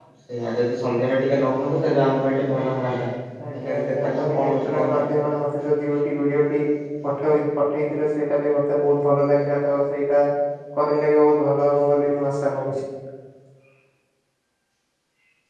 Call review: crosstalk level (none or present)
present